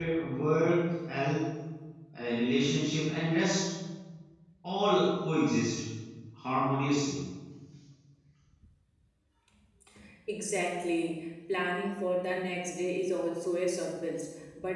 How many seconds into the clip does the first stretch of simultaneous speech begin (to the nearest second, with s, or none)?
none